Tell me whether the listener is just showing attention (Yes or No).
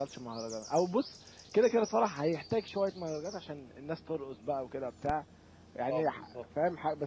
Yes